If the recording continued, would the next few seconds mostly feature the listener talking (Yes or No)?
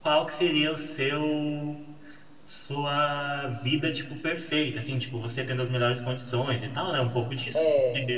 No